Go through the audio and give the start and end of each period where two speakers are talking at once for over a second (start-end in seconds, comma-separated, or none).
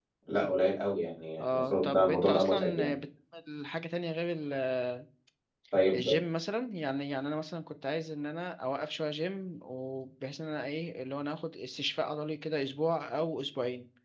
1.4-2.9